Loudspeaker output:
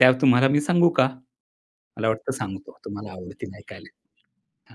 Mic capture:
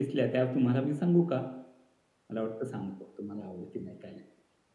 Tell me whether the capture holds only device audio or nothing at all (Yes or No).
Yes